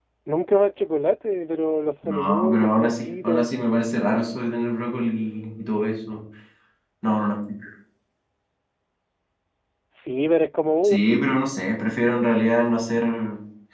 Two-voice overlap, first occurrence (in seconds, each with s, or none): 2.0 s